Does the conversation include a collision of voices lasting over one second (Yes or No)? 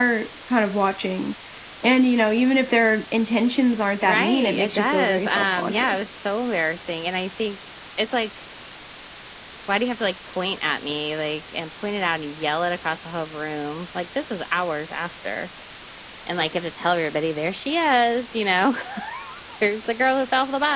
Yes